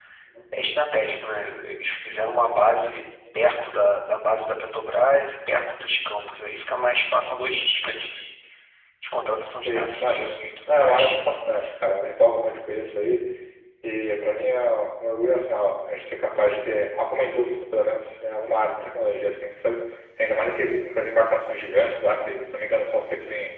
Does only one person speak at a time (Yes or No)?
No